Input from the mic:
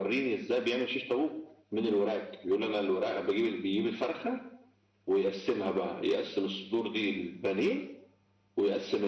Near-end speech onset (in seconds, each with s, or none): none